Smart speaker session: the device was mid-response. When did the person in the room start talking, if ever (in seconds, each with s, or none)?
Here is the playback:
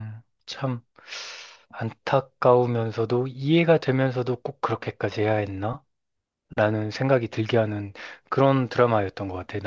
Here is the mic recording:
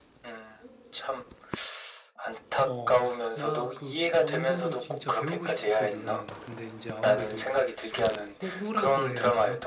2.6 s